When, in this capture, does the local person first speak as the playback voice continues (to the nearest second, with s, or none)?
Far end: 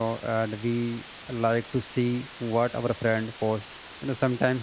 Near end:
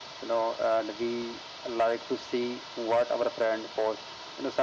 none